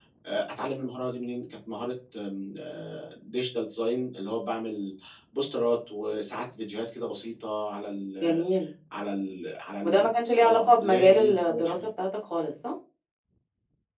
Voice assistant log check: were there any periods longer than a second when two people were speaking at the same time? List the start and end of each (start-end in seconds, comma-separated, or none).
9.8-11.9